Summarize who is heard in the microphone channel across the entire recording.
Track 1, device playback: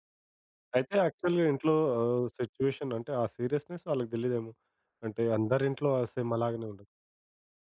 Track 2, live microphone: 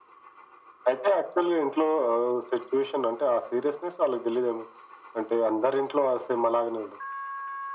echo only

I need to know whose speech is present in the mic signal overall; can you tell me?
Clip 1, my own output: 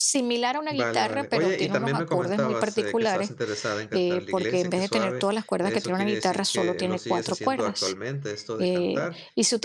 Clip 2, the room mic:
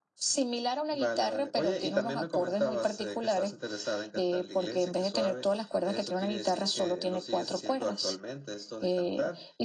echo only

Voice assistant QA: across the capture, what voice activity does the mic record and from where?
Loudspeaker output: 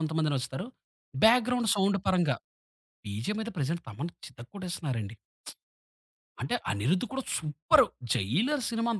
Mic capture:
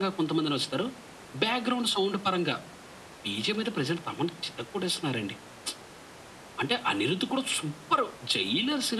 echo only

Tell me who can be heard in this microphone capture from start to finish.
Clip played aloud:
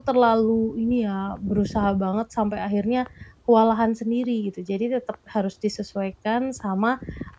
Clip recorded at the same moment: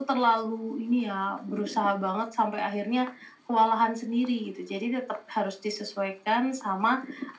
echo only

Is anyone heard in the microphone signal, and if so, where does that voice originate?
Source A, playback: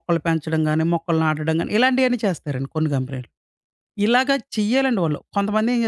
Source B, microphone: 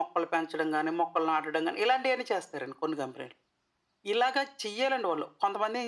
echo only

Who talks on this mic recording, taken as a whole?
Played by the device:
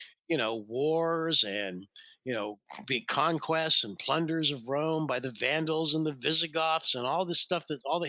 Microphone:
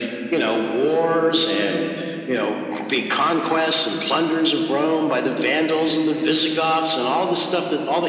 echo only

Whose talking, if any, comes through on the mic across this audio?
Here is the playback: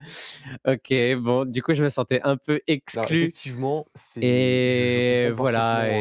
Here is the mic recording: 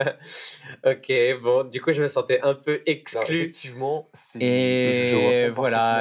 both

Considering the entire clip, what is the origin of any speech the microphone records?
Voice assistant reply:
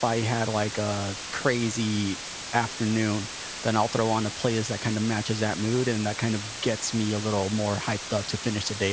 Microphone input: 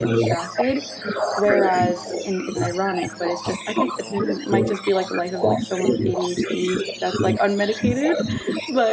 both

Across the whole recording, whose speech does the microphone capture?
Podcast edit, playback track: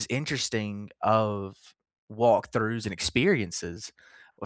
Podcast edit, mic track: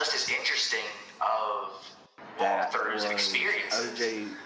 both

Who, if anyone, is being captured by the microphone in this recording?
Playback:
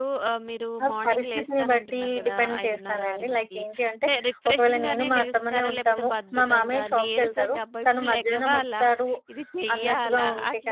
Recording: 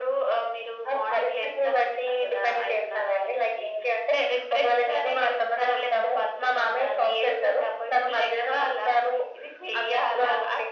echo only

